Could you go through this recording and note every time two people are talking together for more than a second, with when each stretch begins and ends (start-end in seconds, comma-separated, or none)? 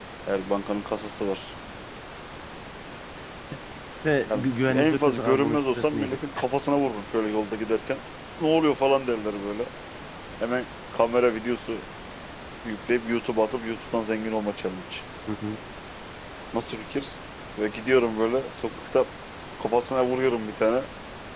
4.3-6.2